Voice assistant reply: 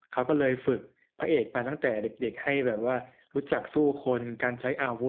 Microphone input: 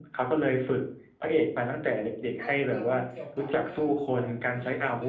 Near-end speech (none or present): present